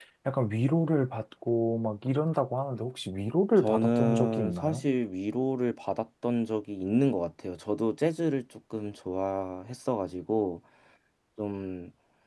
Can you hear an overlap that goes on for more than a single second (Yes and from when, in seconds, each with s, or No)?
Yes, from 3.6 s